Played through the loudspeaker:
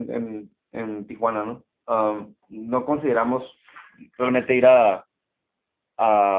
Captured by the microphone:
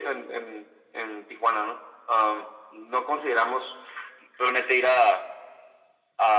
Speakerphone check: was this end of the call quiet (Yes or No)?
Yes